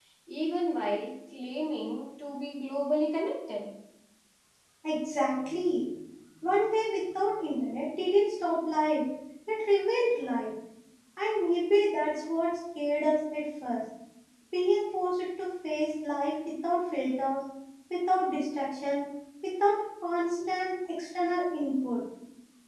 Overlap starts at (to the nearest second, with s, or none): none